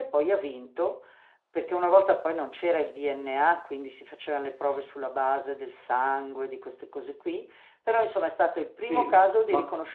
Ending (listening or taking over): listening